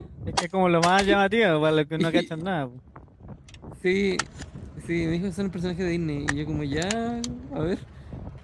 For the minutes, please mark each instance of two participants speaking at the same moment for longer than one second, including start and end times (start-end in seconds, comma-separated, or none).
none